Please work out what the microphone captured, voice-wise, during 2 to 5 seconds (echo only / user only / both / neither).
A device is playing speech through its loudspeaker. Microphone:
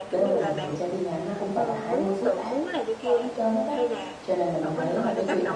both